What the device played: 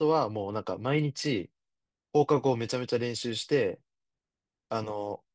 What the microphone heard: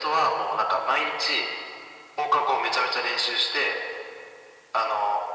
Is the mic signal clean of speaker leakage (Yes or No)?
No